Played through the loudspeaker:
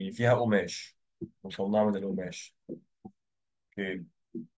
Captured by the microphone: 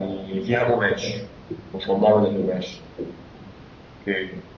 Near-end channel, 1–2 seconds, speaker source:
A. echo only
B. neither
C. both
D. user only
A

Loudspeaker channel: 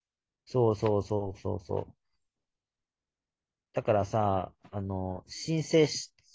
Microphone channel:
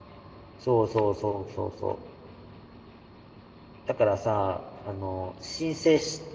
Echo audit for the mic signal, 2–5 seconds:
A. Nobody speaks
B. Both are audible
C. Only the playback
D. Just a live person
C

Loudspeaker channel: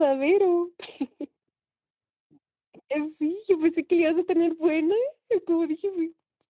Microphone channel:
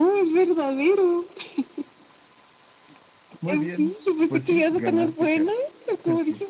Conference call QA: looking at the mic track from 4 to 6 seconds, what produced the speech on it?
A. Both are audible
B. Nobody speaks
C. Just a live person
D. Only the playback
A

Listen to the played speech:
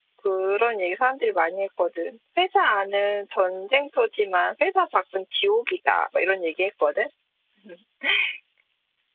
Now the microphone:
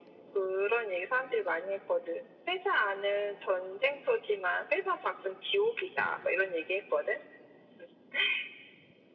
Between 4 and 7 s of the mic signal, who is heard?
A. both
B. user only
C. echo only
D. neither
C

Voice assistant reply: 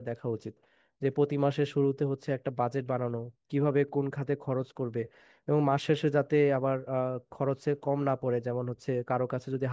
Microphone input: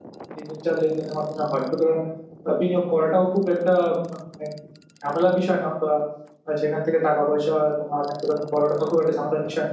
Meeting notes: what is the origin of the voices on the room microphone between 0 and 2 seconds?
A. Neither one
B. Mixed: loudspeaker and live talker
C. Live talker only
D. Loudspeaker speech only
C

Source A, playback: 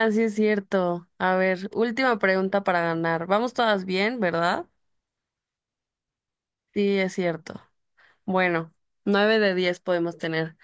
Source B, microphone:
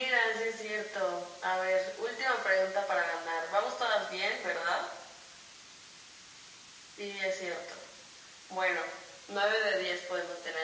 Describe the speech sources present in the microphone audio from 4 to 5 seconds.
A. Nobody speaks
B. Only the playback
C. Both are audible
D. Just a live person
B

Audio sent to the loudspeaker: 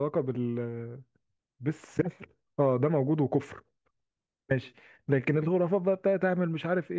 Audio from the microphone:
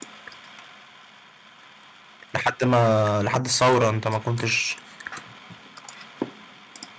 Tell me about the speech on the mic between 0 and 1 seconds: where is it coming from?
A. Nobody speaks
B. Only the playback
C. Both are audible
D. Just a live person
A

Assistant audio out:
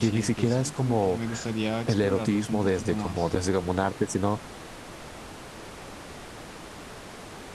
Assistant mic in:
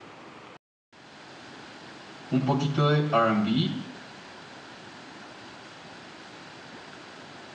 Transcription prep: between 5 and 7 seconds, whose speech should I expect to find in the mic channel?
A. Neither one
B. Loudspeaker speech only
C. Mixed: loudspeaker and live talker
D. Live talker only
A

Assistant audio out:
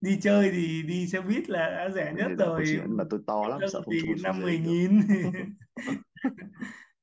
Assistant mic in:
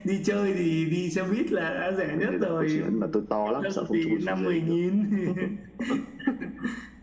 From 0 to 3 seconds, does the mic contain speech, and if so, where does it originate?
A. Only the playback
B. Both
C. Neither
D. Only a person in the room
A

